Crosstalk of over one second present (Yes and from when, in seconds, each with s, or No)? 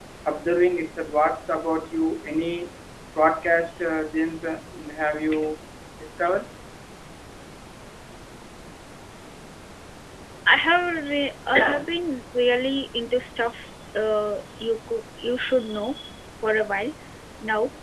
No